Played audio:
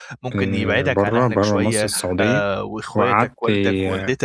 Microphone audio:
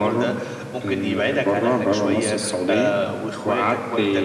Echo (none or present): present